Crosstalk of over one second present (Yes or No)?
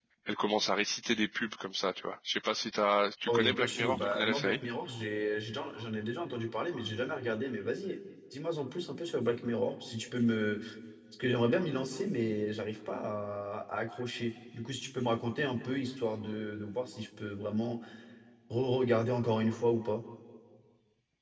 Yes